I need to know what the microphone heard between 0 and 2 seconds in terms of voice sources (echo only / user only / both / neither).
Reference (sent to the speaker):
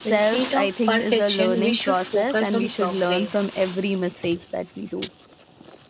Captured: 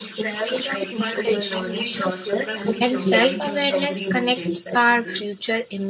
echo only